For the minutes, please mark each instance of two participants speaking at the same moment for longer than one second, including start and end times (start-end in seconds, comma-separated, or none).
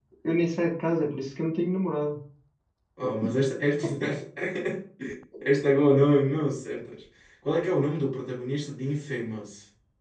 none